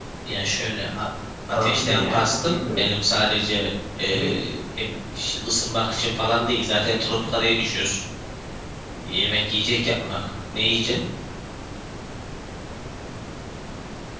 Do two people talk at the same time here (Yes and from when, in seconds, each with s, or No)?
Yes, from 1.5 s